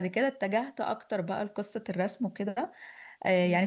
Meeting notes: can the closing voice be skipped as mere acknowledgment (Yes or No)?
Yes